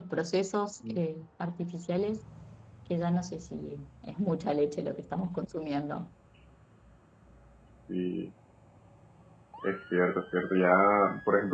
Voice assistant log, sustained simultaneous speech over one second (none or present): none